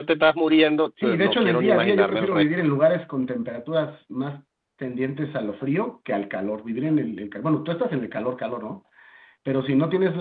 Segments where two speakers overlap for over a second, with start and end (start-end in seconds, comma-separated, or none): 1.0-2.4